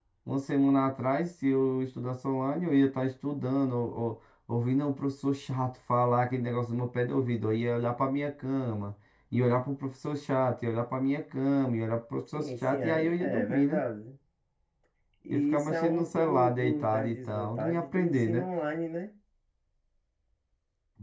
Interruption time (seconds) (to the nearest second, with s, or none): 12 s